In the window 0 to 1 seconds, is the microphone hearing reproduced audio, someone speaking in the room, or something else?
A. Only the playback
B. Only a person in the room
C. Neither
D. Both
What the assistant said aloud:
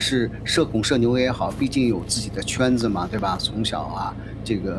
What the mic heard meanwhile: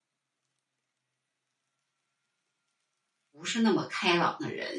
C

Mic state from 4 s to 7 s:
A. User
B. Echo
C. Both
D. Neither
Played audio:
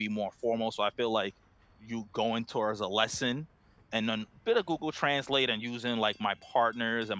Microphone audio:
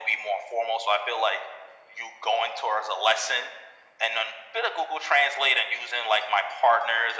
B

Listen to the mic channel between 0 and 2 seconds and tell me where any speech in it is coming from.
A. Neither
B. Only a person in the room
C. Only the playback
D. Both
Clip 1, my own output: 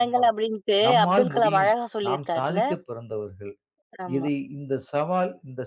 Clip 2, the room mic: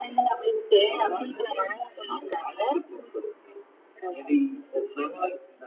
C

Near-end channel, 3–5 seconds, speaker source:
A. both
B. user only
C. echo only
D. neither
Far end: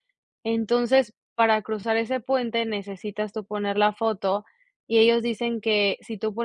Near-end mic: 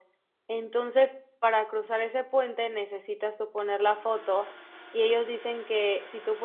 C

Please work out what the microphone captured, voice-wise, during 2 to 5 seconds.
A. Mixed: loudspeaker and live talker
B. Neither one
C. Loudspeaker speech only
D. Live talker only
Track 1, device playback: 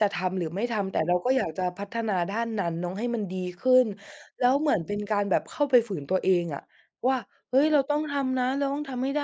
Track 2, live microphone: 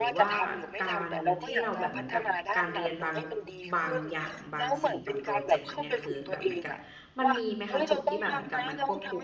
A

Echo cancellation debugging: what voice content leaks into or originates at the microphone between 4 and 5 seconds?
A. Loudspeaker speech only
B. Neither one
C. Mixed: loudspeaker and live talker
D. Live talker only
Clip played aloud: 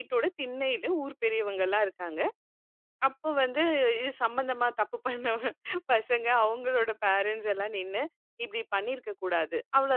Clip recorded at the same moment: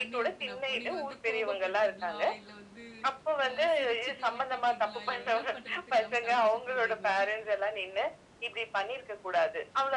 C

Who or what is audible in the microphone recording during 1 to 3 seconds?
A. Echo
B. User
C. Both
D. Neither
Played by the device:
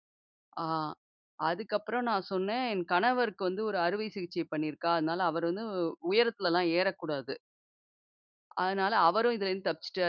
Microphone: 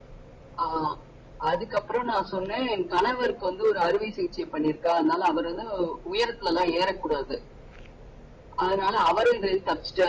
A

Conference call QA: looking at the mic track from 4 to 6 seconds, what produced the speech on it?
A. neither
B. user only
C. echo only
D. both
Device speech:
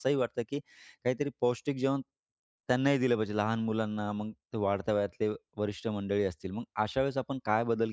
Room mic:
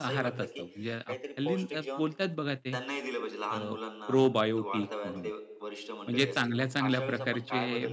D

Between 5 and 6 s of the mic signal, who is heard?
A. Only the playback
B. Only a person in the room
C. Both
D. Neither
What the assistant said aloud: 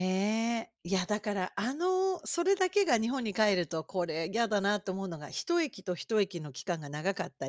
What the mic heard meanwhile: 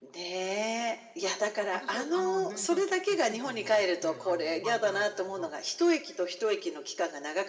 C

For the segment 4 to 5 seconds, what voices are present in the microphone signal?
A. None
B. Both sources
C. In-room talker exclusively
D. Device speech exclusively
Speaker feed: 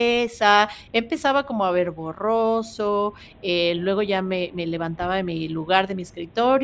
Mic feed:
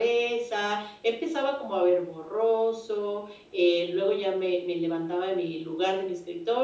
D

